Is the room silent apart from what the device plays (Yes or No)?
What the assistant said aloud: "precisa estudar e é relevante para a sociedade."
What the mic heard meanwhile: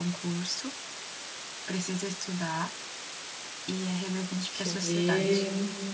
No